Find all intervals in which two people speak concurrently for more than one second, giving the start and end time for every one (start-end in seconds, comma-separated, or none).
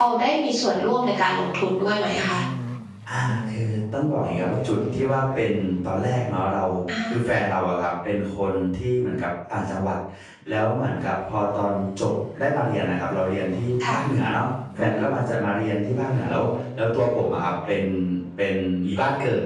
none